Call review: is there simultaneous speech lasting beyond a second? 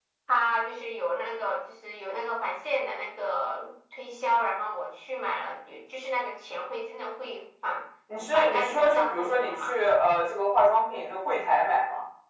Yes, from 8.3 s

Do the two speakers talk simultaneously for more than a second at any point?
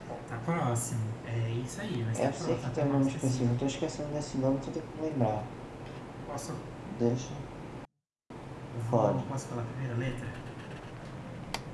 Yes, from 2.2 s

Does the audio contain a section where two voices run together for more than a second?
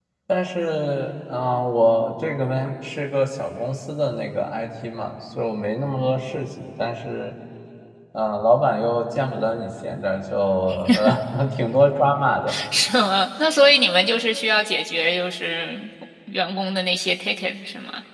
No

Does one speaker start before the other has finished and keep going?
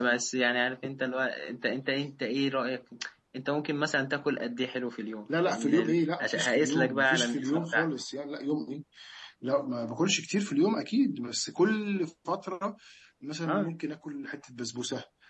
Yes, from 5.4 s

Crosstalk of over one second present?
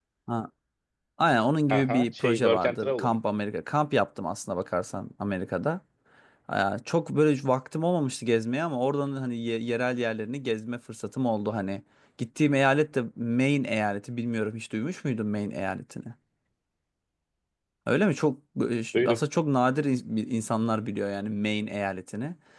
Yes, from 1.7 s

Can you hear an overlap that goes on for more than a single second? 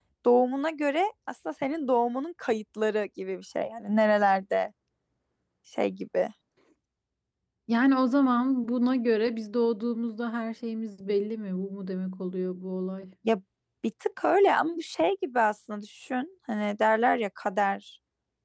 No

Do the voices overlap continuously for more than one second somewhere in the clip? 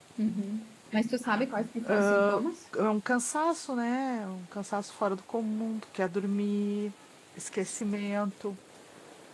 No

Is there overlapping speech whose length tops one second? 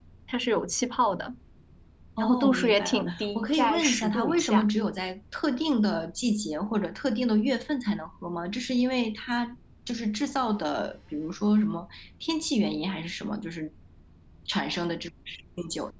Yes, from 2.2 s

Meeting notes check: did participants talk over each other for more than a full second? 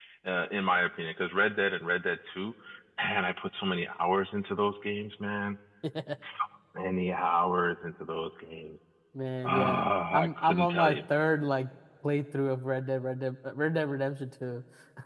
Yes, from 9.4 s

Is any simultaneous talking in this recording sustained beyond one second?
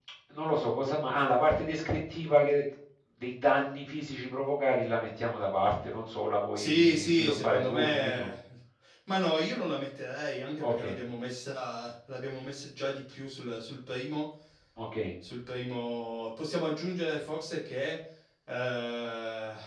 Yes, from 6.5 s

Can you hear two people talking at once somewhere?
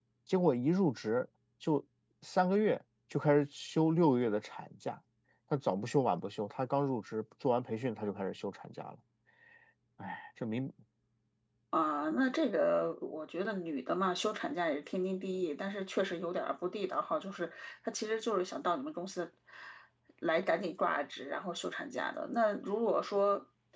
No

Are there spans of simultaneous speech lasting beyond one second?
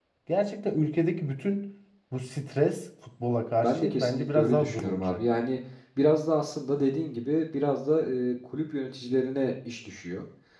Yes, from 3.6 s

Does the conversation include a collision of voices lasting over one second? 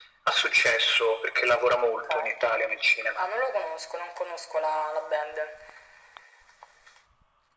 No

